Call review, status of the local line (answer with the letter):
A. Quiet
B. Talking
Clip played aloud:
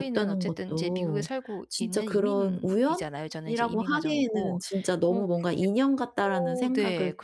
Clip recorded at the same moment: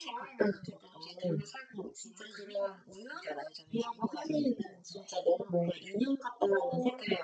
A